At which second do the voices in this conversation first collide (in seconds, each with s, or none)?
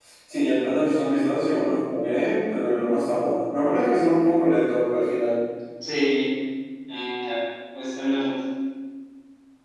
none